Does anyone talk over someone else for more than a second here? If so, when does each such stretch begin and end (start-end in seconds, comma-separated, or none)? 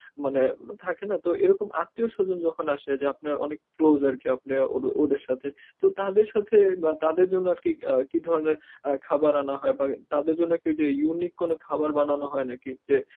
none